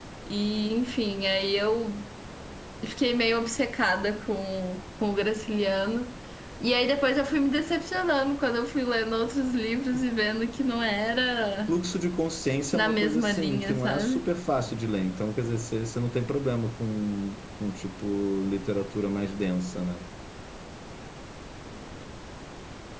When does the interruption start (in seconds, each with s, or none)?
12.7 s